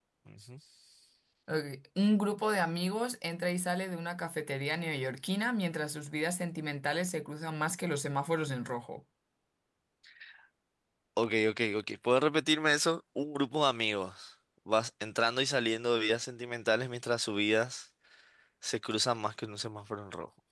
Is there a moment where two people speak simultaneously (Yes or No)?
No